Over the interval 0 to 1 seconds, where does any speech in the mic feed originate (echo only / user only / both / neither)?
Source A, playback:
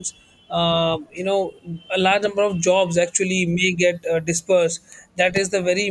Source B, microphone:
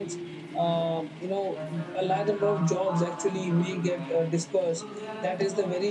both